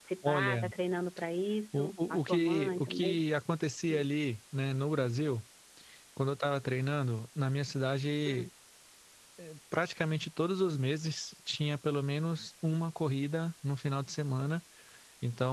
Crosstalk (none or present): present